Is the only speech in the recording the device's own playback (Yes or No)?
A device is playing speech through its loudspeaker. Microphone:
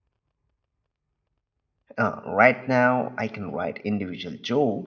No